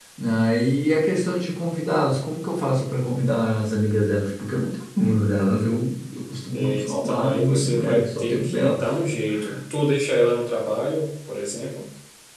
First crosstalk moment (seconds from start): 6.5 s

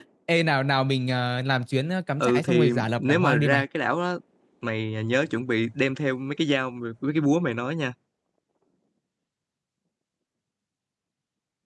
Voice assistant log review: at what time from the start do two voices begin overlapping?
2.2 s

